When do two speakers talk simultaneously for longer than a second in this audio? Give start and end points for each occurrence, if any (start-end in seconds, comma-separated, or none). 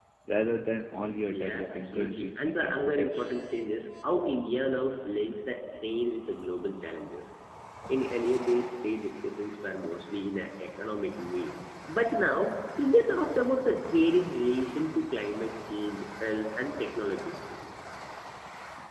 1.3-3.3